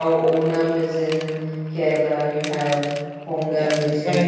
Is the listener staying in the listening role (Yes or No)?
No